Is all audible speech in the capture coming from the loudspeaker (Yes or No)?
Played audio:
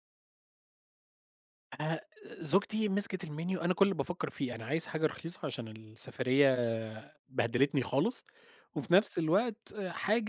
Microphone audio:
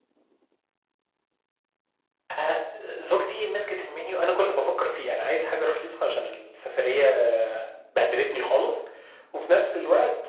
Yes